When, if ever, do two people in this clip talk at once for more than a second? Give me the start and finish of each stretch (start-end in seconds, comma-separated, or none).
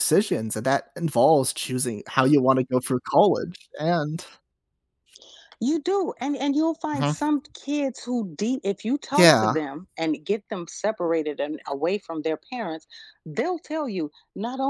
none